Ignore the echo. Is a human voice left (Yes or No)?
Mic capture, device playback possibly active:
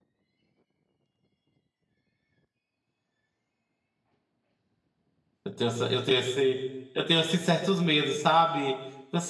Yes